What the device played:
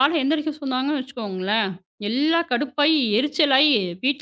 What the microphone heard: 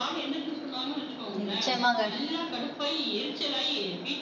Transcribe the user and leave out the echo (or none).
நிச்சயமாங்க.